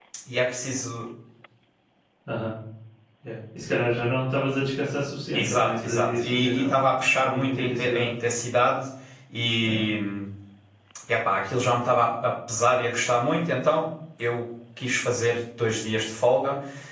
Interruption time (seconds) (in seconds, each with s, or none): 5.3 s